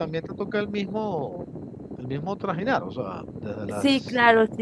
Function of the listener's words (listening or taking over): taking over